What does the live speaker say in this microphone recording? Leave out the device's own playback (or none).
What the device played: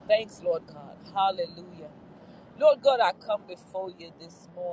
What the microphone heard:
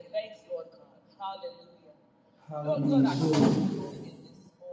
Hallelujah. Glory.